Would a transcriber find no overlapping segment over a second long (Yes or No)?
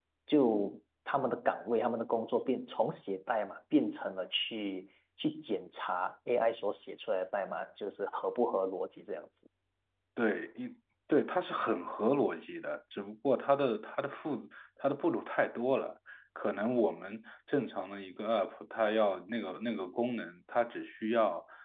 Yes